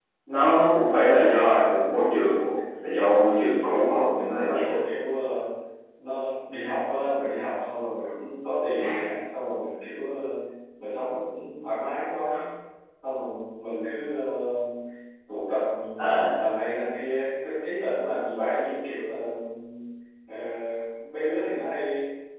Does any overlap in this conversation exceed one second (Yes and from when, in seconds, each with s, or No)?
Yes, from 3.4 s